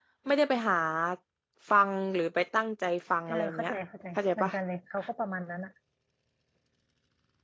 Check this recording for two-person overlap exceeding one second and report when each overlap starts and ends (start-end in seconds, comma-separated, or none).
none